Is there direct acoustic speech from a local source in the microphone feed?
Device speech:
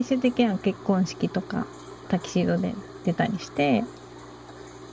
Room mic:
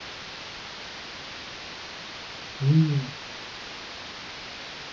Yes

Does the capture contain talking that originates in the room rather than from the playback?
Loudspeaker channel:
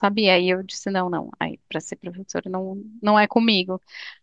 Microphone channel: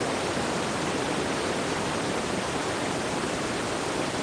No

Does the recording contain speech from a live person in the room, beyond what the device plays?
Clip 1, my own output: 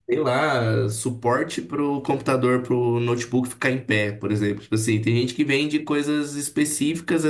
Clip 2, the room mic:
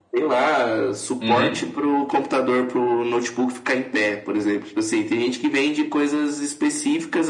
Yes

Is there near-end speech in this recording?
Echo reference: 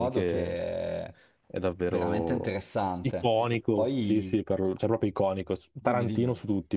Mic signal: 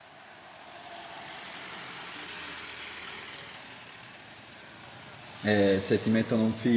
Yes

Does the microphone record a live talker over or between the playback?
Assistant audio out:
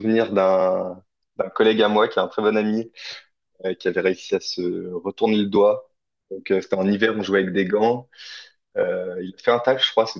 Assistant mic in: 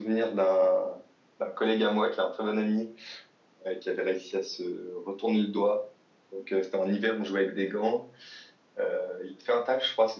No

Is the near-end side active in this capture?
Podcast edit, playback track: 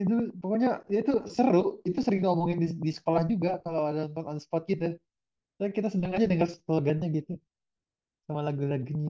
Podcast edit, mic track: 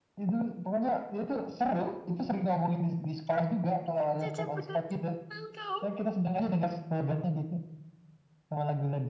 Yes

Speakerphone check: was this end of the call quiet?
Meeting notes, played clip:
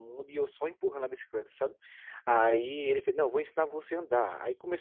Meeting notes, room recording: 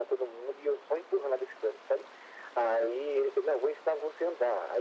Yes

